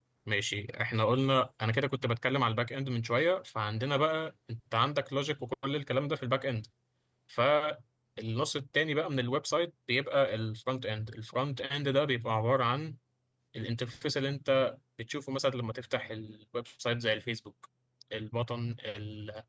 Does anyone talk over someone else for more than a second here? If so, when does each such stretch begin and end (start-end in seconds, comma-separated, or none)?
none